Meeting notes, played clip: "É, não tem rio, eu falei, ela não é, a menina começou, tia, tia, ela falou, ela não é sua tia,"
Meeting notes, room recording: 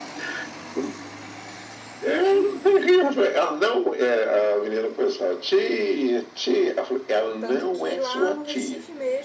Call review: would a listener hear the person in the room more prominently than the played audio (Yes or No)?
No